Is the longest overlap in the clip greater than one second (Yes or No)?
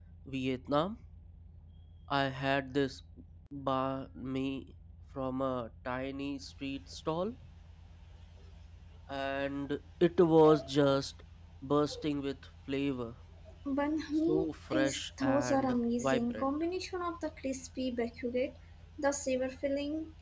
Yes